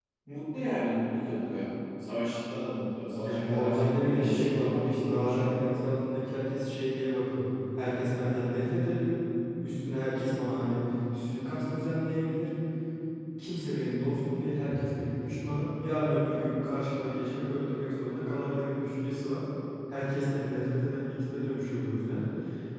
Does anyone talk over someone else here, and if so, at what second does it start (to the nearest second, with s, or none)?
3 s